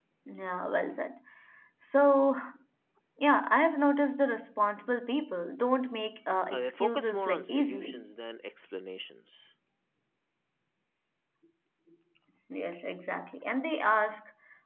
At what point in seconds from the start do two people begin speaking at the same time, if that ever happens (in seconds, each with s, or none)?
6.5 s